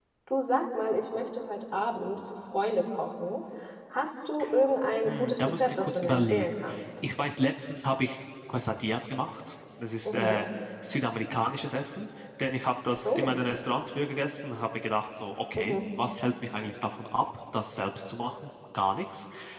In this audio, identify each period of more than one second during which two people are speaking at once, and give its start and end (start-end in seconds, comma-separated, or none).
5.0-6.5